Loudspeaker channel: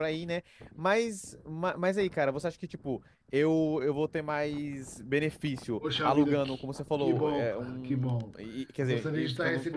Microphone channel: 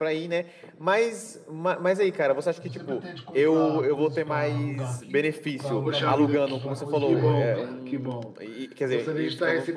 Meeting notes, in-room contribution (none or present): present